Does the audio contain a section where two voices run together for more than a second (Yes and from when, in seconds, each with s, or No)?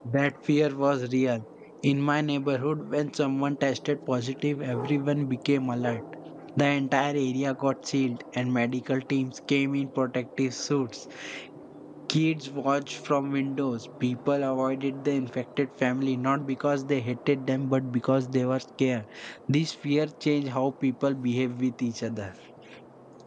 No